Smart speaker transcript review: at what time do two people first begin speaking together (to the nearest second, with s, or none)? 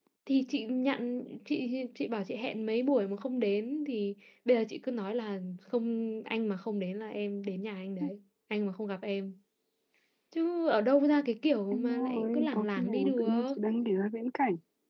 12 s